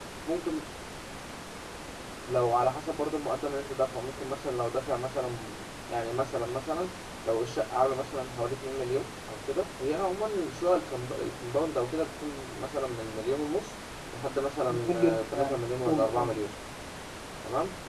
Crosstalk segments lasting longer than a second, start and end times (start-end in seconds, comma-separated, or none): 14.7-16.4